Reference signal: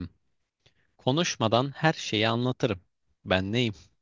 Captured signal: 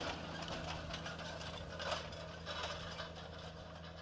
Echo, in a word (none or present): none